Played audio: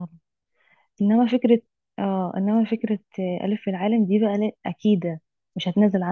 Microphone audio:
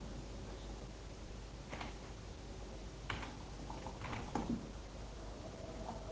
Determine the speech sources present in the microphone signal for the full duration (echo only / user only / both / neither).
neither